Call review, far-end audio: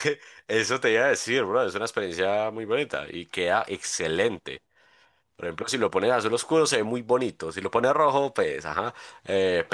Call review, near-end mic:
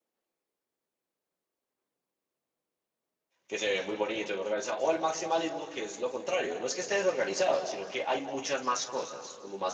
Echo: none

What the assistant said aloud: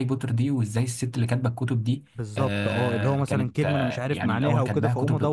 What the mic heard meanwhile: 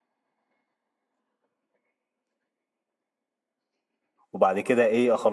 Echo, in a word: none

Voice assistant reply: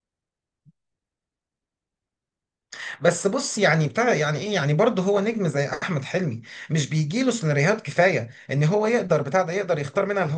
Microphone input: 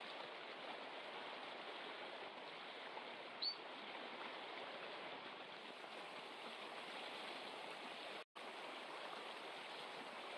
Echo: none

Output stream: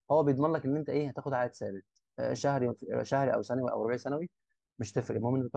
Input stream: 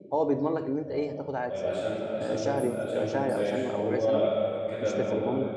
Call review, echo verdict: present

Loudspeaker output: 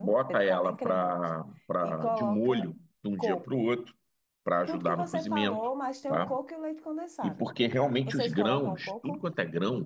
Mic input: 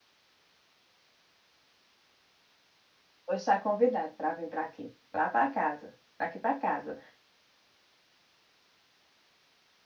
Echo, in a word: none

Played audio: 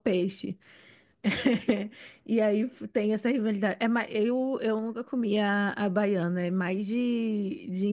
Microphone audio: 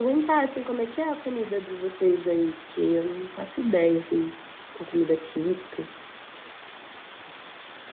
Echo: none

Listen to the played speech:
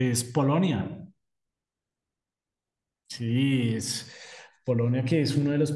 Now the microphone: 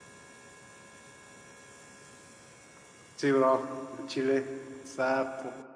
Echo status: none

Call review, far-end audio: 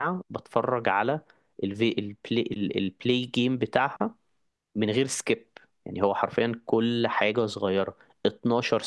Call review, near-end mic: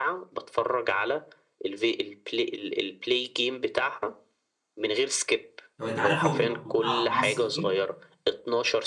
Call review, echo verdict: present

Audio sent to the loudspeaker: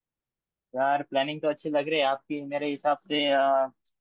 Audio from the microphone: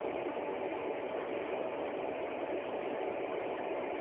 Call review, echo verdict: none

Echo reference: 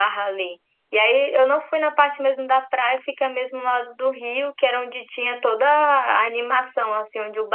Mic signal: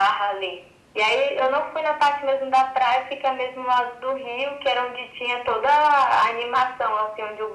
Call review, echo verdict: present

